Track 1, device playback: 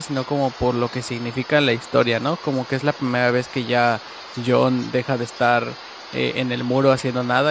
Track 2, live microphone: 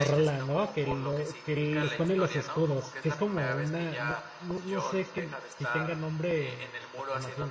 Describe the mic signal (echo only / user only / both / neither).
both